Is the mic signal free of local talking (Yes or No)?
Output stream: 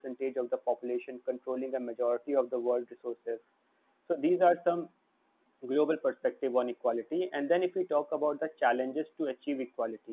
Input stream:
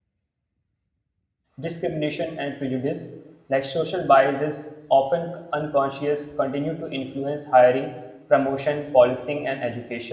No